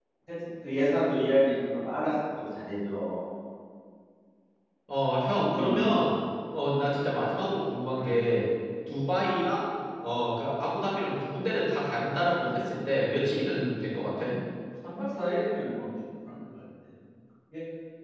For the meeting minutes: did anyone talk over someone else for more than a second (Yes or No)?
No